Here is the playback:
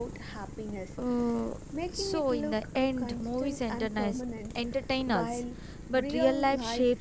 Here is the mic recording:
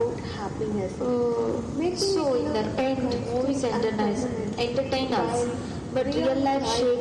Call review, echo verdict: present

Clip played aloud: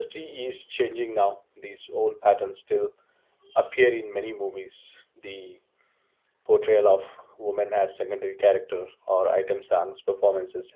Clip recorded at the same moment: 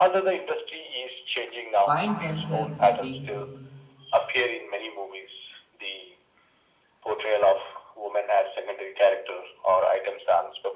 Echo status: present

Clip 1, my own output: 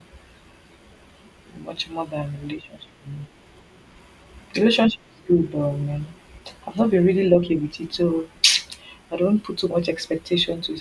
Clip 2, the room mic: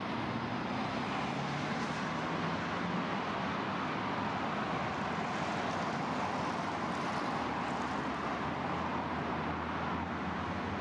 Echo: none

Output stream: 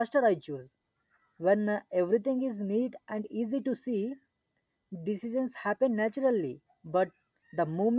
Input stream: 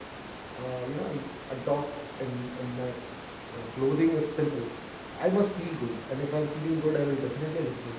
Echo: none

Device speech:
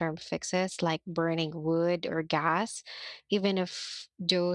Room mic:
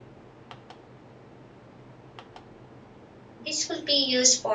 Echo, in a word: none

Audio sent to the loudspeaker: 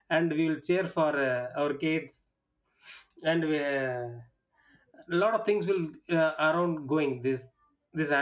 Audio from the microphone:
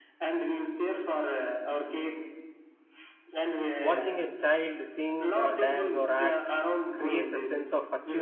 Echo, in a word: present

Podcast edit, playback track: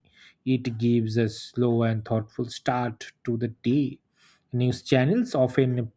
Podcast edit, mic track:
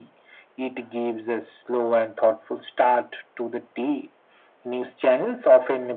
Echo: present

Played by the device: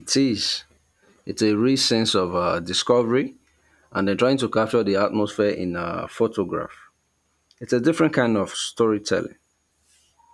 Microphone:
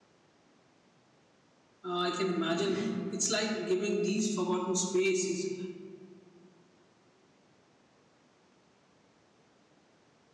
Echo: none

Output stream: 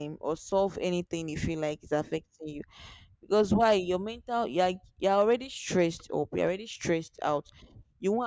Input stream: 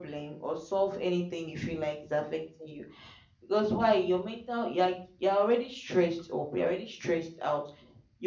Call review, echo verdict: present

